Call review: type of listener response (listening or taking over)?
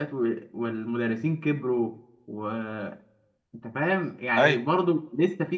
listening